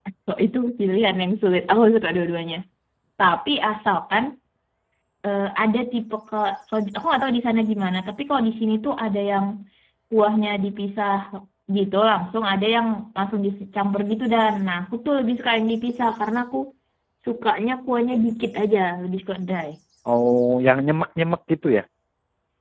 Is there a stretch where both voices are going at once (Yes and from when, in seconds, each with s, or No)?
No